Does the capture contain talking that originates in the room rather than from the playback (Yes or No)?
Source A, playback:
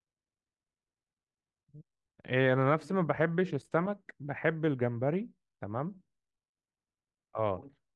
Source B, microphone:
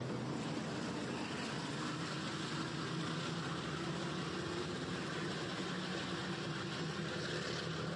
No